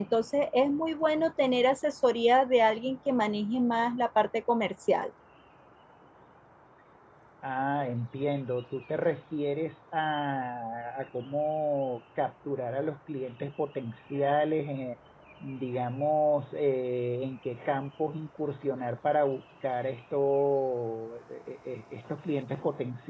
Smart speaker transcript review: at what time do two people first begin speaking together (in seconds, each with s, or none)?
none